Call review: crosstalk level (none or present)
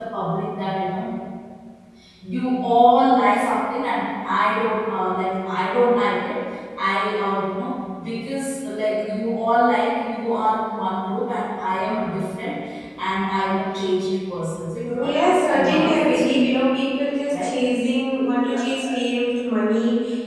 present